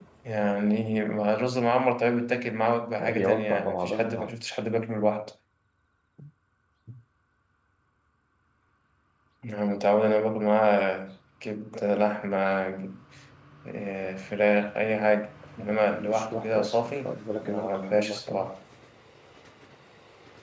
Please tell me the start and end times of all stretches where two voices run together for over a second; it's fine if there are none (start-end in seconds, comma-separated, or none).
3.0-4.4, 15.6-18.5